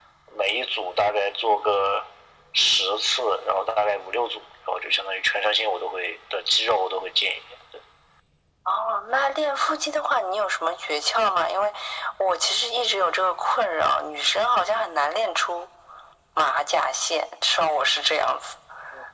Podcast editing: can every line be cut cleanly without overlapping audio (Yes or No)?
Yes